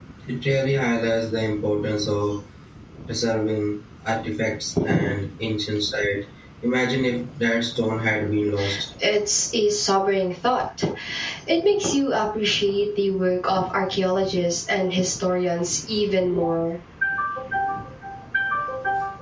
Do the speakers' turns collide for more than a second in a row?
No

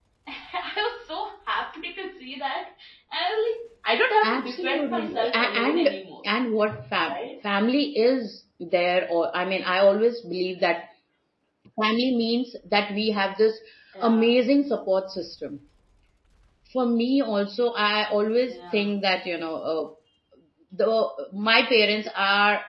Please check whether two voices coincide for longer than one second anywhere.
Yes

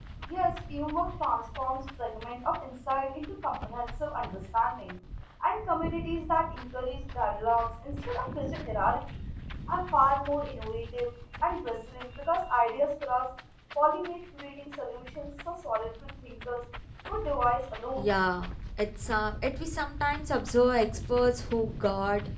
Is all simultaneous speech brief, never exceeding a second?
Yes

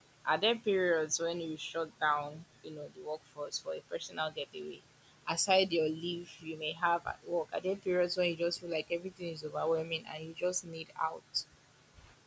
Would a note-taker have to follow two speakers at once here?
No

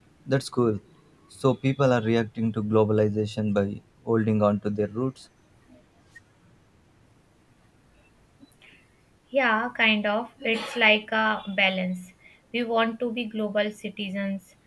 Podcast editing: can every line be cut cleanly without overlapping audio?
Yes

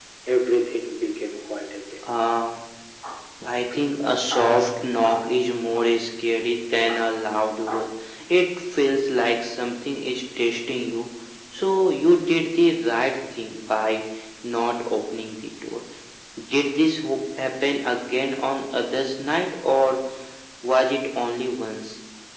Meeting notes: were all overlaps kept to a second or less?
Yes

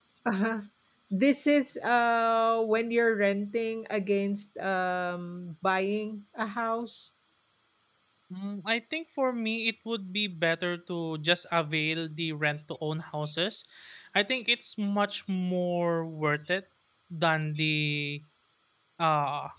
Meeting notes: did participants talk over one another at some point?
No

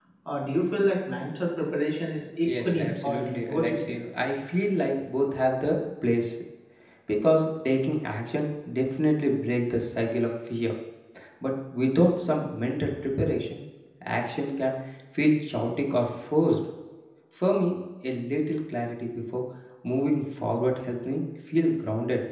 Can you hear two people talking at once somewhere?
Yes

